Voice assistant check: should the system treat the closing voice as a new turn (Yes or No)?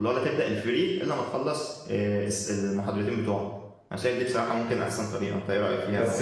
Yes